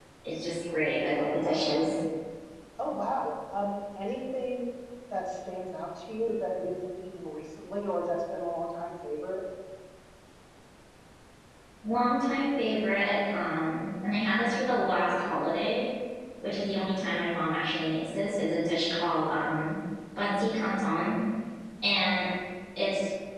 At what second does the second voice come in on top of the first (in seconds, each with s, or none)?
none